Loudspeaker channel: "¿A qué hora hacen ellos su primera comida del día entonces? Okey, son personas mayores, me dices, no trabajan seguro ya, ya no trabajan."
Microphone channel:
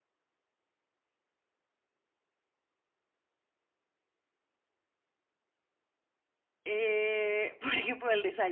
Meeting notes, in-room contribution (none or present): present